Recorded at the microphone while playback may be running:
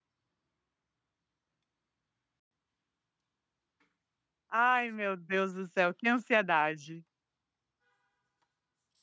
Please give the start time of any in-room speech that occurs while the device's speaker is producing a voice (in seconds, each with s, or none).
4.5 s